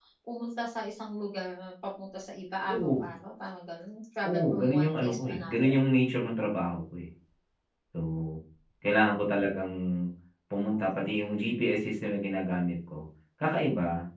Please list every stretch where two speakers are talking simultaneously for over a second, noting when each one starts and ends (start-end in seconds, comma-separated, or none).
4.2-5.7